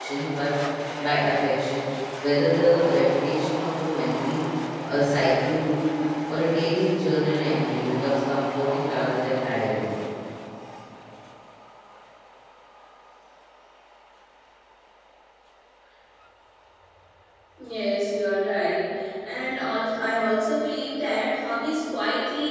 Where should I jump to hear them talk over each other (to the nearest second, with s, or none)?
none